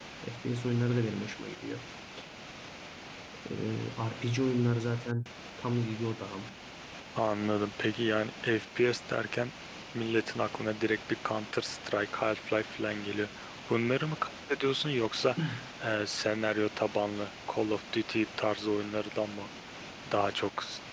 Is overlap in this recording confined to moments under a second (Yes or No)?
Yes